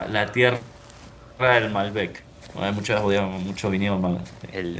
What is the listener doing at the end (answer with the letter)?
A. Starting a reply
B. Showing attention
A